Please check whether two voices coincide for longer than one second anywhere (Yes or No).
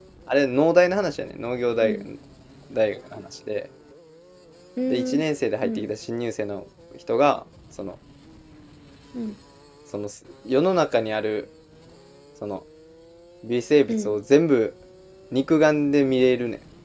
No